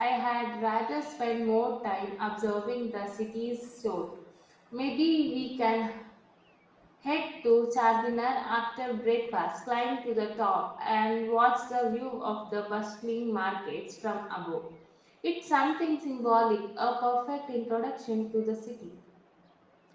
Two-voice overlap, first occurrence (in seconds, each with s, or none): none